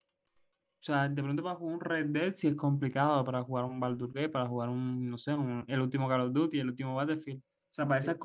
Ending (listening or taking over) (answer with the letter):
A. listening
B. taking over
A